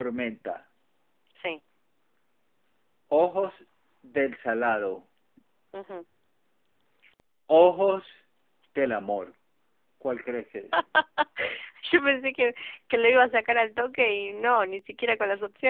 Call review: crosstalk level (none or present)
none